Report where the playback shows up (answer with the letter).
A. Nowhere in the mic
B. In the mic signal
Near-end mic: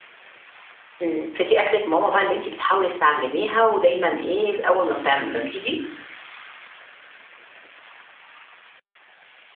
A